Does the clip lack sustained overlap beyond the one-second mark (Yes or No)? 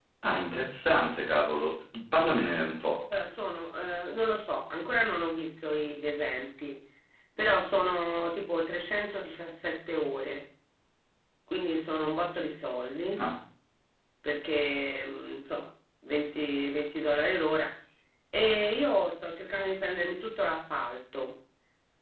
Yes